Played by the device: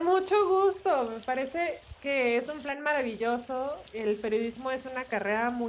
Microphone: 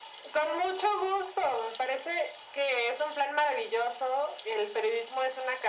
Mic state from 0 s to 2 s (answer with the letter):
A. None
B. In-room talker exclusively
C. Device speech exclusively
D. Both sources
C